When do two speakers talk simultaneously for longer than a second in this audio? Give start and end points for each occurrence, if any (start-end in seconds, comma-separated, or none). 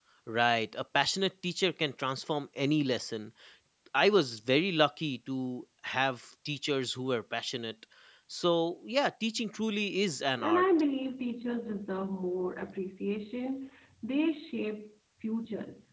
none